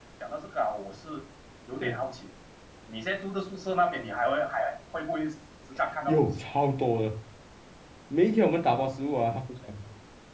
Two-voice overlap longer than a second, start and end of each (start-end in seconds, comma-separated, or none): none